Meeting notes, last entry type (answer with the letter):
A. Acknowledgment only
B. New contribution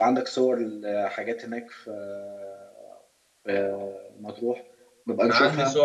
B